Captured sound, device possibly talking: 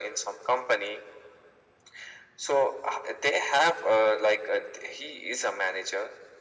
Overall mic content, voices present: echo only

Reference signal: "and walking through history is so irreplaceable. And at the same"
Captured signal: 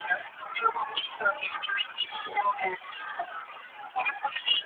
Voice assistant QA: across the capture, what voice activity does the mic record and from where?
echo only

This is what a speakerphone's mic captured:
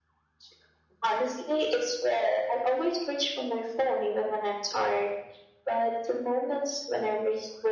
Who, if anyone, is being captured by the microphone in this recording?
echo only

